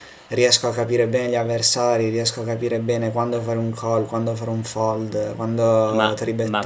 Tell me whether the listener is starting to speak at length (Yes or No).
Yes